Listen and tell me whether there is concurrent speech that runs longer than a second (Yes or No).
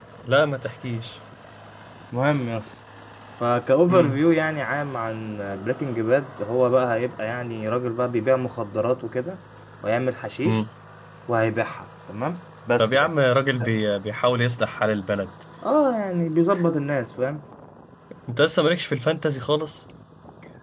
No